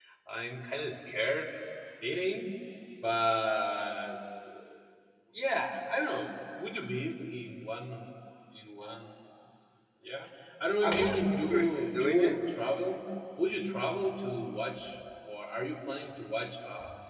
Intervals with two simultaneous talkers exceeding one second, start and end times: 10.8-12.3

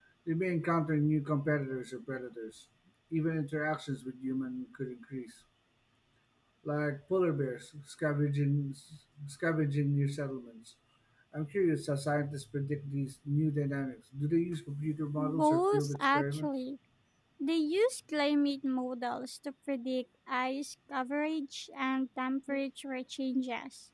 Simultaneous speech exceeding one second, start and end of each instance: 15.2-16.5

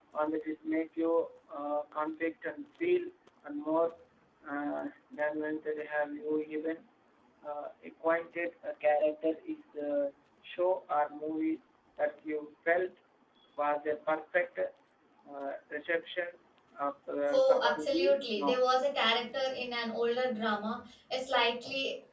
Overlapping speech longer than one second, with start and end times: 17.3-18.6

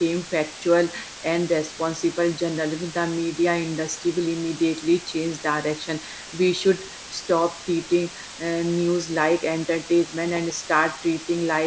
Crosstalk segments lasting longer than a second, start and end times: none

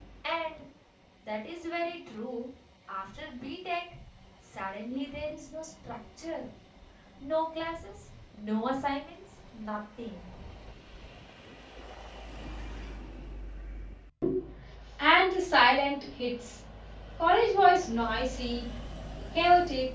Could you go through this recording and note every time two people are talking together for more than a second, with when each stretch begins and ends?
none

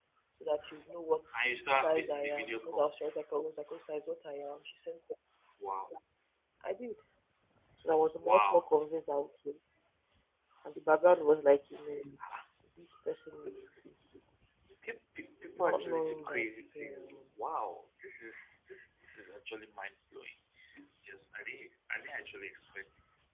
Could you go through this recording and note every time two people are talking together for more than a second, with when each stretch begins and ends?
1.4-2.9, 15.6-17.3

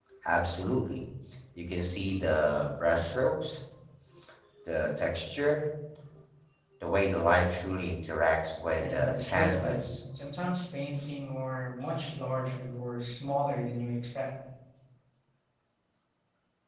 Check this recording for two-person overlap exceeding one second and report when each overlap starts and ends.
8.8-10.0

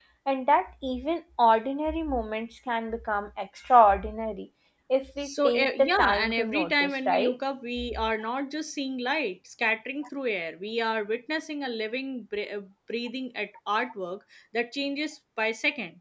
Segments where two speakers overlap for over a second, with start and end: 5.2-7.3

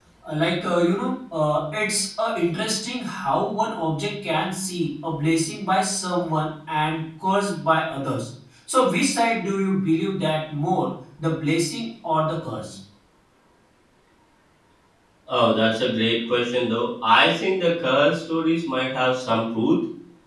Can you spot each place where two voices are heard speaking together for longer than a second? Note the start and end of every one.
none

